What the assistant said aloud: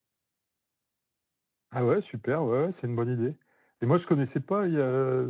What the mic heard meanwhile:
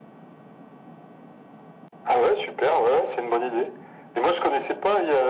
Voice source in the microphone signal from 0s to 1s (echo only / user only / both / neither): neither